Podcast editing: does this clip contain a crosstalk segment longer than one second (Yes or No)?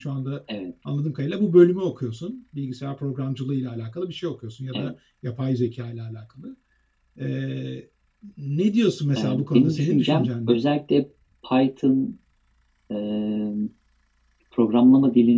Yes